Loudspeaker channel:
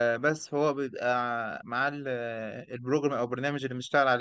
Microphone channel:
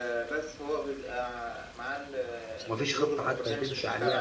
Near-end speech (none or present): present